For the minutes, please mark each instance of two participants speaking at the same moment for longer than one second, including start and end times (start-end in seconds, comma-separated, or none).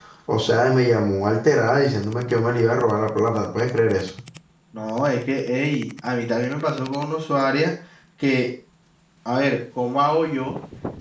none